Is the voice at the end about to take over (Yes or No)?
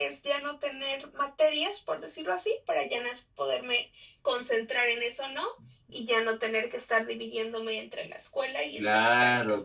Yes